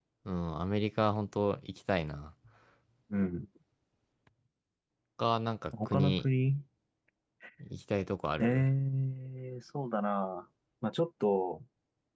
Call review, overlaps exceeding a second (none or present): none